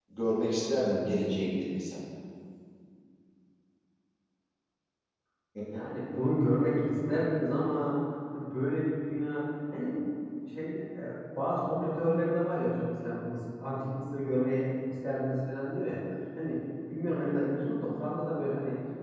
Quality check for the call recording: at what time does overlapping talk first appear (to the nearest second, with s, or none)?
none